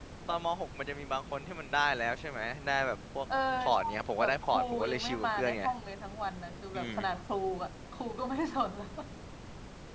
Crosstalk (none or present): present